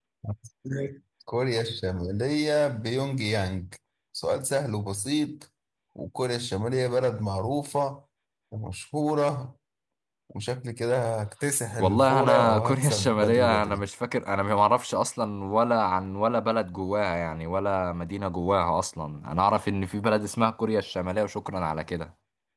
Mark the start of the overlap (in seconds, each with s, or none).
11.8 s